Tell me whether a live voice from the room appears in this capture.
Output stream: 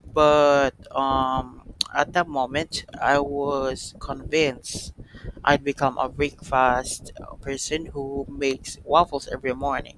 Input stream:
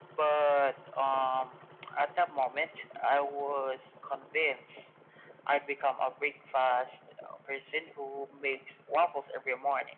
No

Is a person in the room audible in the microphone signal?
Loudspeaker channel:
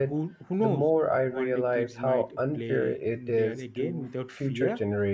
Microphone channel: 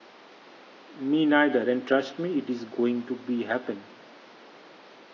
Yes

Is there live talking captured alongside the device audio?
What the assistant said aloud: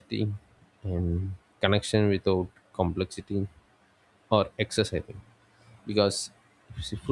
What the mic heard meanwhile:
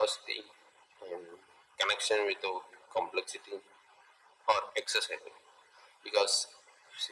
No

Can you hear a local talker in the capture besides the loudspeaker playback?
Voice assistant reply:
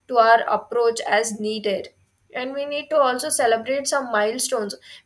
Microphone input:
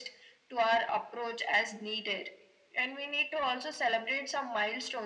No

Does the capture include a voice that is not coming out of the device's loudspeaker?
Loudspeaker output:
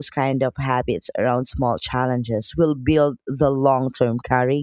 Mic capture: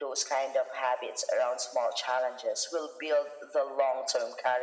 No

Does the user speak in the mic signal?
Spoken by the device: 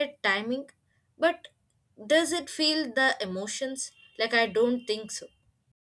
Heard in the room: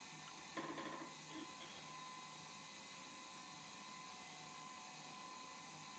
No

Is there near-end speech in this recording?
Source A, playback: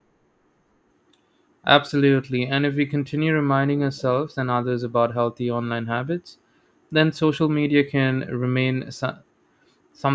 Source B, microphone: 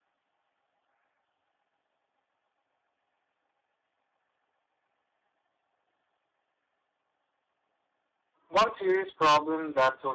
Yes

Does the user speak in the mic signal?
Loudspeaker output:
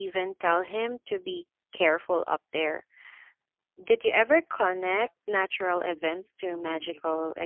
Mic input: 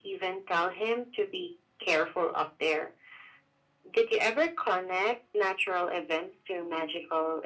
No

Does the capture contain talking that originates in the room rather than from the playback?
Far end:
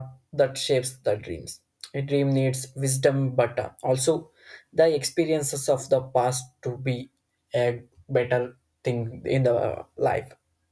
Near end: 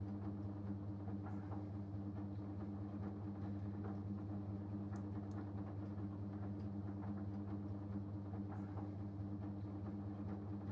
No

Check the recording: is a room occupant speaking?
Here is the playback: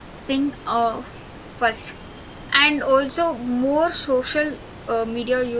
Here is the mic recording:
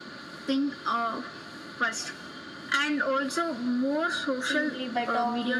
Yes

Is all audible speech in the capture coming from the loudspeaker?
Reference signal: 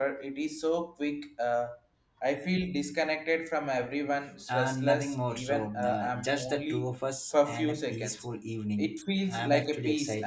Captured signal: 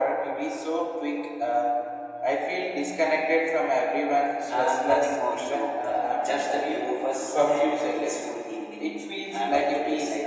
Yes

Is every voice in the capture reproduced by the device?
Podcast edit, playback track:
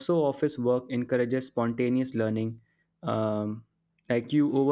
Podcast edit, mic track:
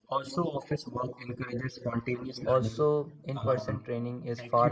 No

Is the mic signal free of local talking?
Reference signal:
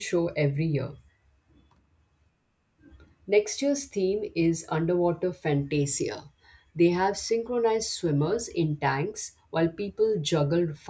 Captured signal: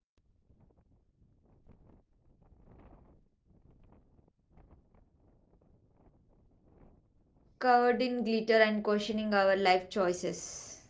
No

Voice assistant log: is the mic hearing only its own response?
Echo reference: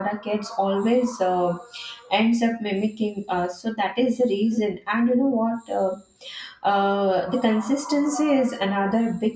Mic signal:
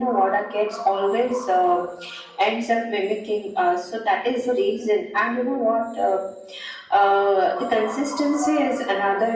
Yes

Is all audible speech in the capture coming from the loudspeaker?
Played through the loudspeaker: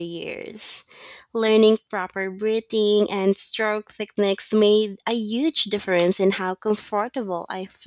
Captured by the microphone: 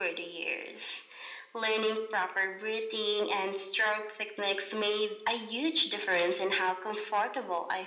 Yes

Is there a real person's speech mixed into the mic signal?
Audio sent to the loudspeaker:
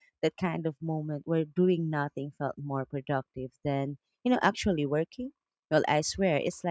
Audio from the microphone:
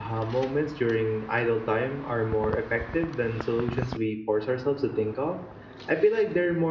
Yes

